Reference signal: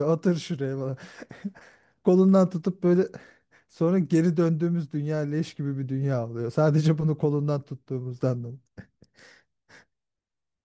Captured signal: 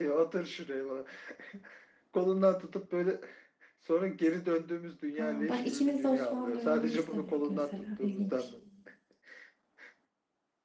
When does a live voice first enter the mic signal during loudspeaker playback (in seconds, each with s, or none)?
5.1 s